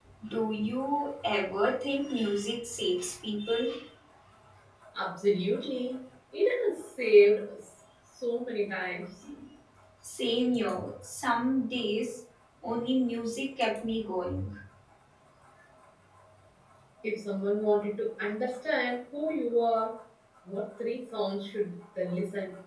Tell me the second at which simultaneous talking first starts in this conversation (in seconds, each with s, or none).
none